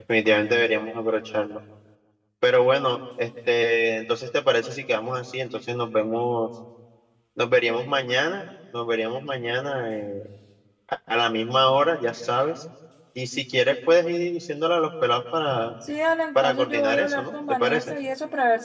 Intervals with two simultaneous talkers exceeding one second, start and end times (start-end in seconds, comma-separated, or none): 16.4-17.9